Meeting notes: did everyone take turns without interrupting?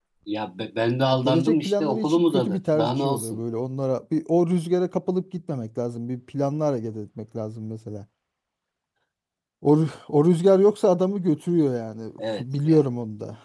No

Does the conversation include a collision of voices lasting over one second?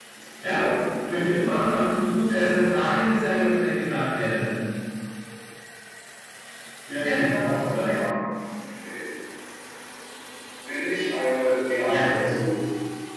No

